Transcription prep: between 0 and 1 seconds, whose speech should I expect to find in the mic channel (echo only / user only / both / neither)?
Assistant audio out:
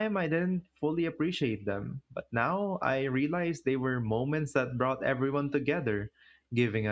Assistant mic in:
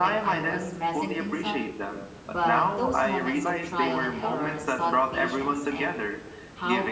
both